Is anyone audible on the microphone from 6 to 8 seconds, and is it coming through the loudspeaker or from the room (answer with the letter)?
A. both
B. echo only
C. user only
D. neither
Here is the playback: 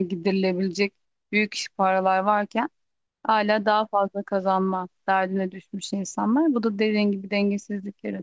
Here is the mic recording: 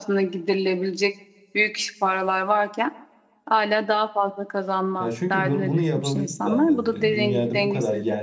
A